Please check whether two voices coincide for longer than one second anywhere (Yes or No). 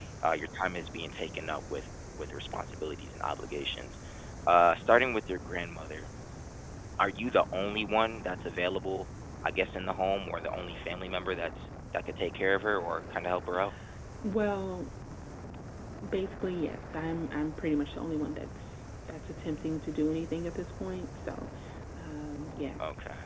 No